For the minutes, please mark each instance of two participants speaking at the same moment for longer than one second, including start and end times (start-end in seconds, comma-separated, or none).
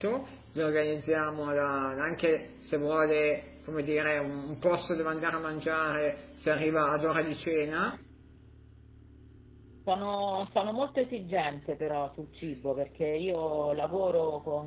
none